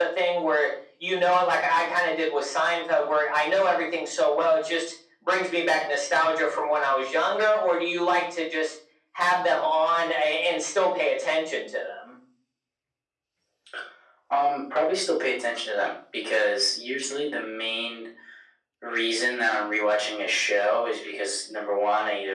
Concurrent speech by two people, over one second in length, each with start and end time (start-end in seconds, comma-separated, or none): none